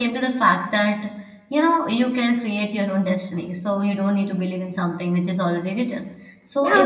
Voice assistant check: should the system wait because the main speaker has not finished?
No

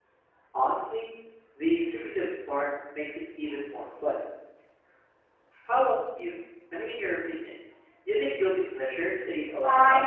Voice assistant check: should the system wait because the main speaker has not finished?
No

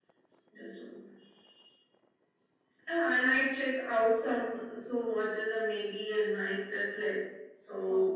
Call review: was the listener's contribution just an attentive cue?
Yes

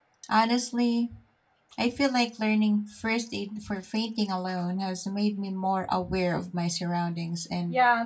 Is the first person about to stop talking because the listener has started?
Yes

